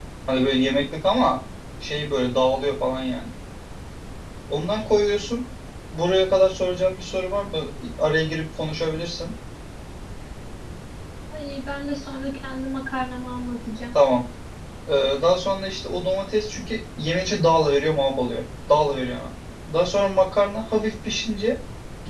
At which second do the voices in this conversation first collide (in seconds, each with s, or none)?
none